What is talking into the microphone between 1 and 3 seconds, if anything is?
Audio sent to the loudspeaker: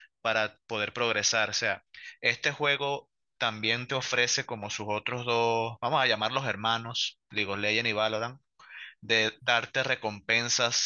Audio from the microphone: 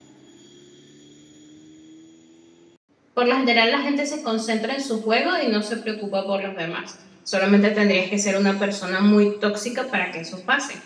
neither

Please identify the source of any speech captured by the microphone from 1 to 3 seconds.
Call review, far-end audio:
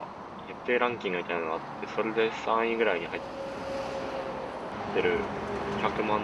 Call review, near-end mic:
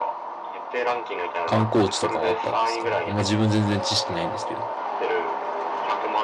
both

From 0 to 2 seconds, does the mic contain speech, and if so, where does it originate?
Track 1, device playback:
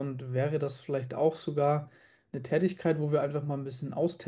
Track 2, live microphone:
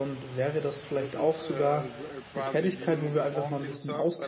both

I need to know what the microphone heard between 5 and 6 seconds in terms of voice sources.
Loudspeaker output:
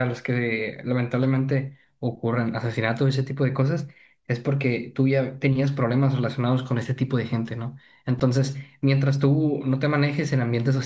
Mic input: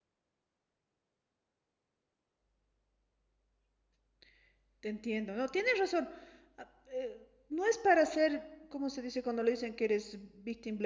user only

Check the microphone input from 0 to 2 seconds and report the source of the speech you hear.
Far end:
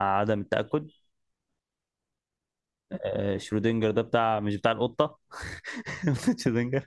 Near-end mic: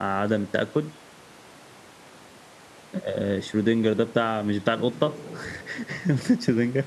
echo only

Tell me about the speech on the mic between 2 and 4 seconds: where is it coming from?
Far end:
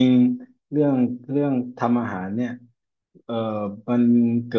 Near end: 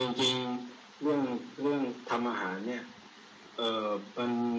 echo only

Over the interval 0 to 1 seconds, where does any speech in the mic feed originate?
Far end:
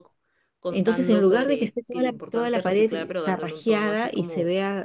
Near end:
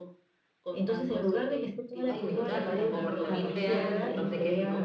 echo only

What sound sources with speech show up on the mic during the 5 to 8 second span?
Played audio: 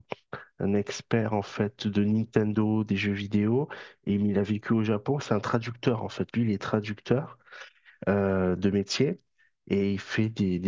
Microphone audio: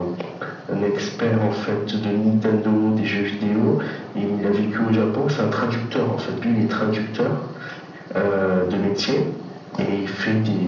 echo only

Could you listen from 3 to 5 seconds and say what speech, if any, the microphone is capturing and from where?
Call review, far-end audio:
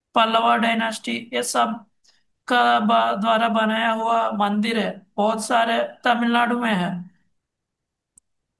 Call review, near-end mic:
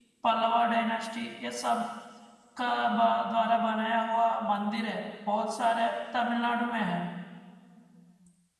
echo only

